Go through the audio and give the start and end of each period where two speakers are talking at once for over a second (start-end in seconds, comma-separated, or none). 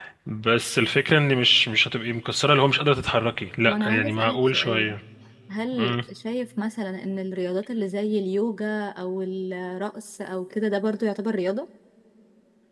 3.6-5.0